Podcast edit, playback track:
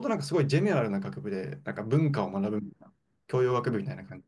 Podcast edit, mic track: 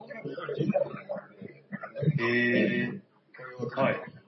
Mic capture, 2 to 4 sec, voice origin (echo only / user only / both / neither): both